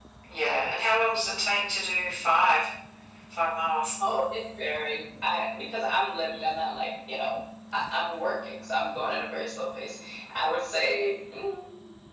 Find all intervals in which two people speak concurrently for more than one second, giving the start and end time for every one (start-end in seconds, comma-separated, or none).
none